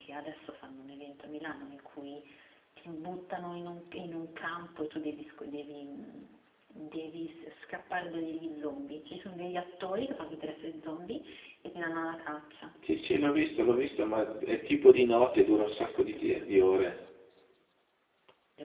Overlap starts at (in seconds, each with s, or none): 15.3 s